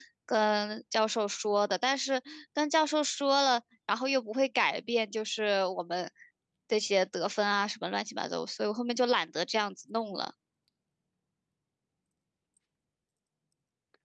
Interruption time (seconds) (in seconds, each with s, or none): none